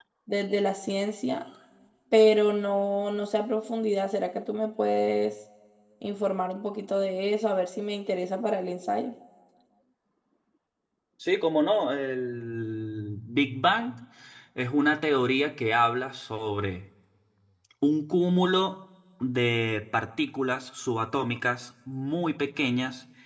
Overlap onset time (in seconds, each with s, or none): none